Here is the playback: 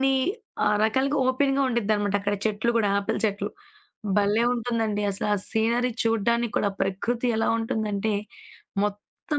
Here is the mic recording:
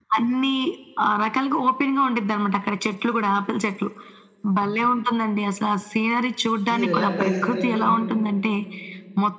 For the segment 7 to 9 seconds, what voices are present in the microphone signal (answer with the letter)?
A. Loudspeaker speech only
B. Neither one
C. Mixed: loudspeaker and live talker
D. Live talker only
C